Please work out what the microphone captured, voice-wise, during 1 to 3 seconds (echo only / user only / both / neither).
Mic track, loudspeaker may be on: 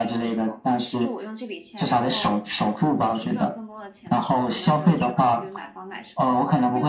both